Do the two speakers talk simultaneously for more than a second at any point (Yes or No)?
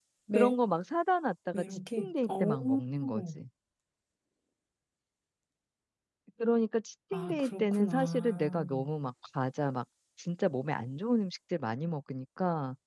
Yes